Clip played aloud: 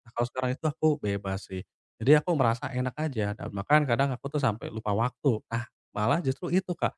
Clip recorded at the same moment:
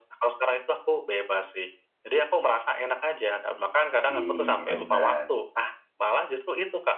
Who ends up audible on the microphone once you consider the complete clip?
both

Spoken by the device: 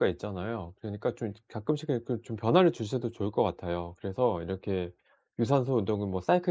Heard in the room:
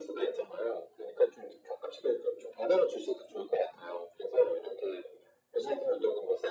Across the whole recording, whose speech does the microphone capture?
echo only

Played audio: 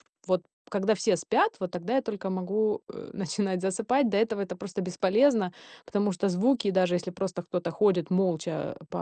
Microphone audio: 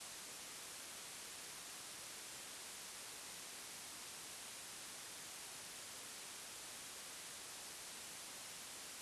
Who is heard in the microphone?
neither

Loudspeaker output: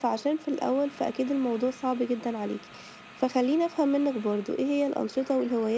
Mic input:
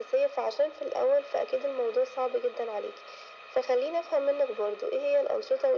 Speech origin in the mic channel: echo only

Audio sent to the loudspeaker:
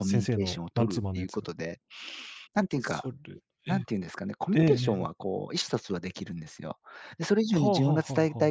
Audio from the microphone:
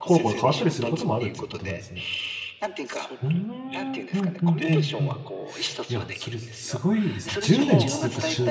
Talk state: both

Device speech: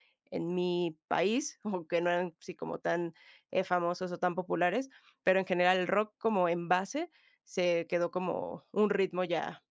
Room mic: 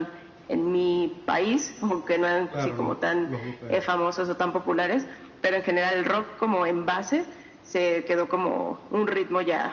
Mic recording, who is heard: both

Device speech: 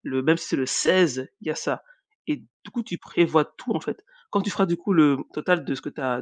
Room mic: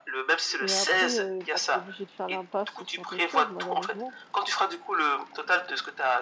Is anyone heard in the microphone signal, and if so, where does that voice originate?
both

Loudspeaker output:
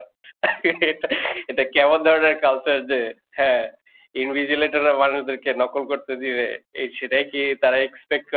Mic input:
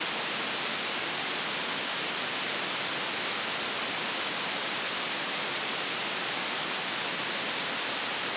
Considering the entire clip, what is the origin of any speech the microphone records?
neither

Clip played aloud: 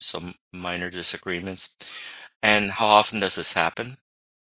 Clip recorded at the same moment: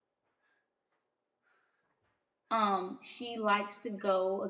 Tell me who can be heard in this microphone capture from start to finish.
user only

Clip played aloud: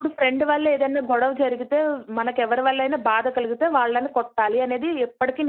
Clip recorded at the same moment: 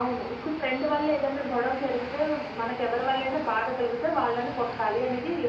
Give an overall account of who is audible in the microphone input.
echo only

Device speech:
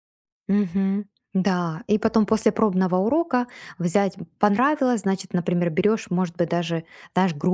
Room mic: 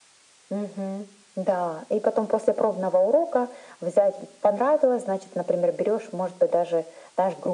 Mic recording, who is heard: echo only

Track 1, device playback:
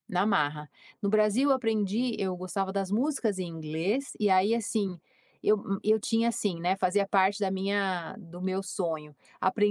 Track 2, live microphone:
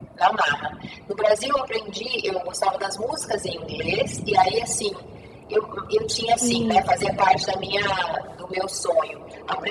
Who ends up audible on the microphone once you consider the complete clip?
both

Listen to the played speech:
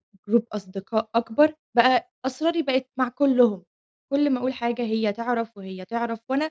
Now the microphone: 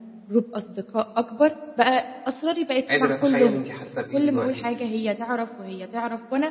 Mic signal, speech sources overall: both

